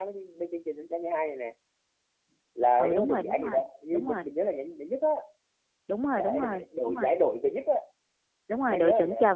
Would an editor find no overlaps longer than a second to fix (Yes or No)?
No